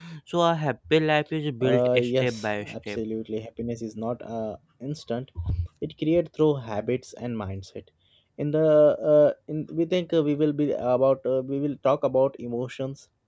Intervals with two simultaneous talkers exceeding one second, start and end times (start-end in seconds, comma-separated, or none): 1.6-3.0